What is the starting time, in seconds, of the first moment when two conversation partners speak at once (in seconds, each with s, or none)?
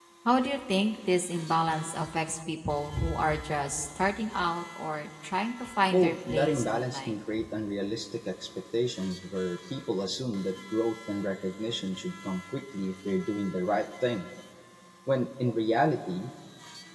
5.9 s